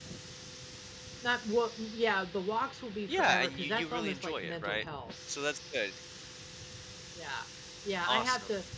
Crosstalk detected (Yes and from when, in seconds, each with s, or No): Yes, from 3.1 s